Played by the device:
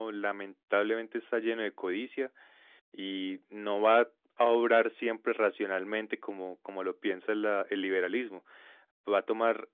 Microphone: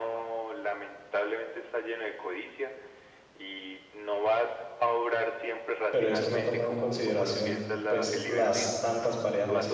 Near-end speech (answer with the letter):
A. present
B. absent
A